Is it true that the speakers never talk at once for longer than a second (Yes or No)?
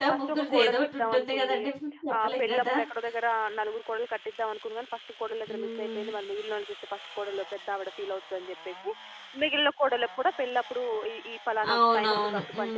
No